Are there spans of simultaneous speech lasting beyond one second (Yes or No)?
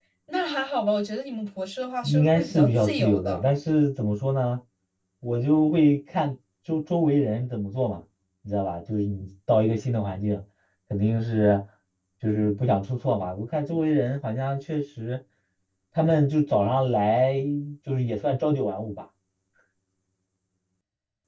Yes